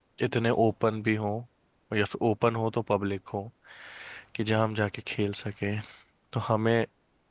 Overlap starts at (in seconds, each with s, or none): none